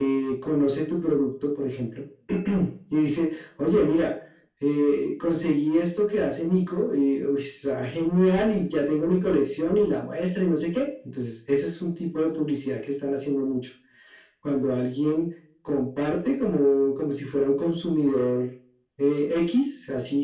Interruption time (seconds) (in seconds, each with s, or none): none